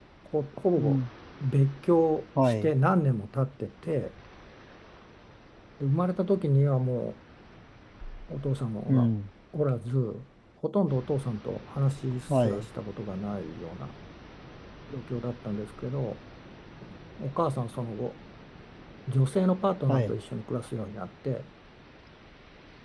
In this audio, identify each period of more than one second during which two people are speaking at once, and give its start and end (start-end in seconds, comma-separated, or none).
none